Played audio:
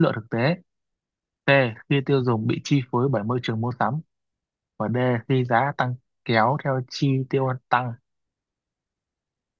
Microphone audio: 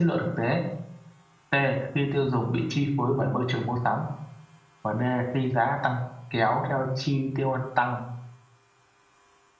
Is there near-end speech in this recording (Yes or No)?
No